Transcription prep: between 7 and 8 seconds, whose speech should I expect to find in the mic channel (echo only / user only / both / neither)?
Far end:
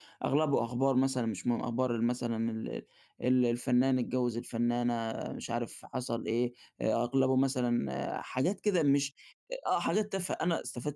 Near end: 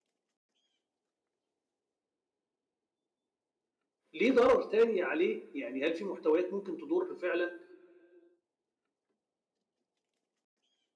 user only